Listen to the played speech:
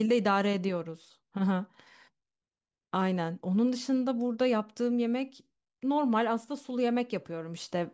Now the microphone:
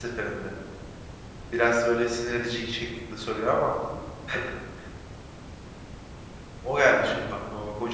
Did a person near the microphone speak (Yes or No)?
Yes